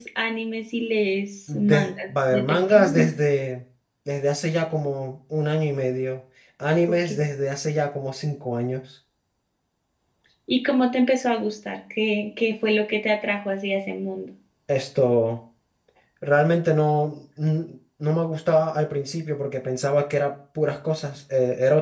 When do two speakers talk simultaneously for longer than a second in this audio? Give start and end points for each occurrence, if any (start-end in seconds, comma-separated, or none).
1.5-3.1